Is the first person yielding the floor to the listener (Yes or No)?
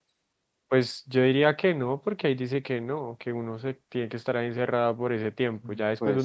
No